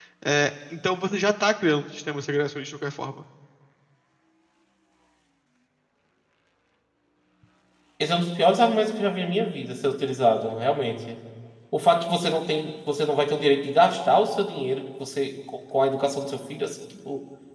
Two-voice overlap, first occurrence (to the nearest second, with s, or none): none